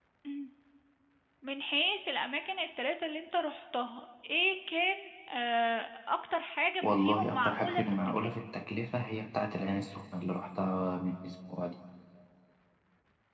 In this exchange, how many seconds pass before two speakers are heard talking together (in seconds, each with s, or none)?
6.8 s